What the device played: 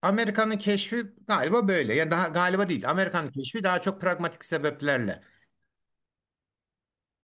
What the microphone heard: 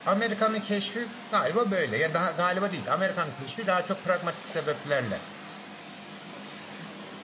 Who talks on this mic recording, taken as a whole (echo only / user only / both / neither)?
echo only